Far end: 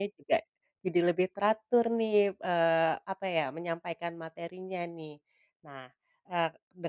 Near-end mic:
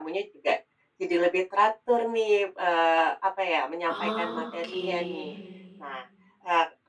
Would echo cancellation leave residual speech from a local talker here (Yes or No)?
Yes